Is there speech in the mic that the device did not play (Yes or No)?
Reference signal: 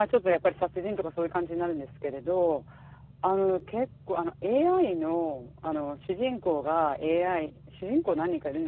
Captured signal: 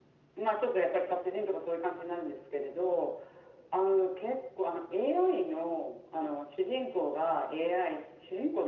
No